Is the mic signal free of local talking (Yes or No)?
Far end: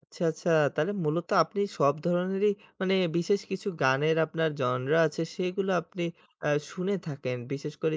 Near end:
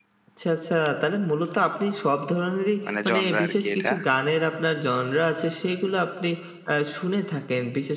No